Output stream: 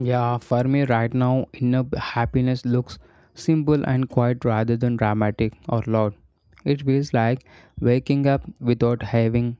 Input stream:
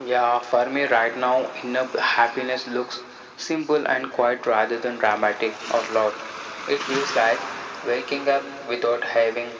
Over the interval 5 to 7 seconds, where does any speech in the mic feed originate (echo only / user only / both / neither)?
echo only